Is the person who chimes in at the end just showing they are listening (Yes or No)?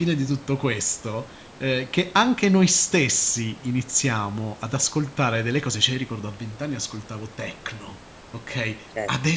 Yes